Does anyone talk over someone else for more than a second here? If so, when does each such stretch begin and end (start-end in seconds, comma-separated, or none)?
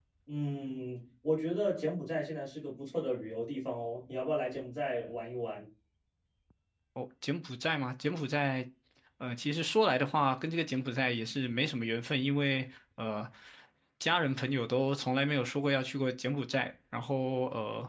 none